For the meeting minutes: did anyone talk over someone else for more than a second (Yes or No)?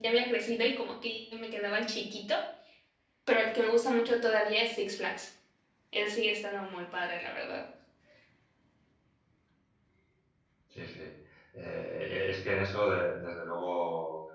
No